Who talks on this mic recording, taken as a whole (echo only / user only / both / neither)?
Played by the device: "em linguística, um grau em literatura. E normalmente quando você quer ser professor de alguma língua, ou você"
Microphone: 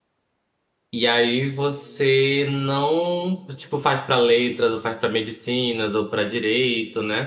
user only